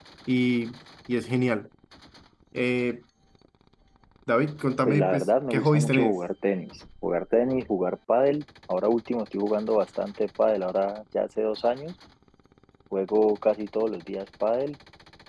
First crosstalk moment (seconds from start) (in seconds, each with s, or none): 4.8 s